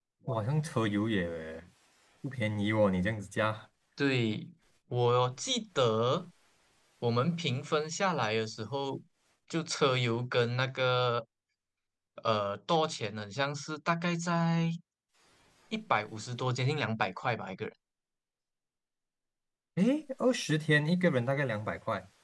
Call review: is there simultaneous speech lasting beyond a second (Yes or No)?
No